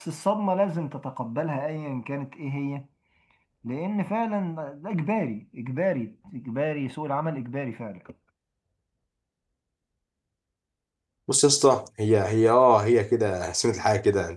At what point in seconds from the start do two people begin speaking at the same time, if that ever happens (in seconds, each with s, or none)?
none